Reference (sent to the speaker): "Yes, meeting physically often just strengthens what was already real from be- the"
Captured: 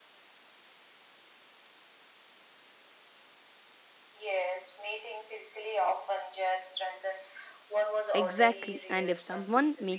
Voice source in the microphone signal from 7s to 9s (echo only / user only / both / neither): both